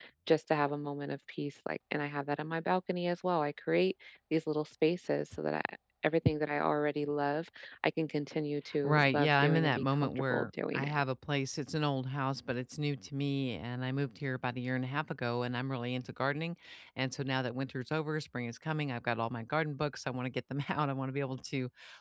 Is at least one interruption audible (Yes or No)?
Yes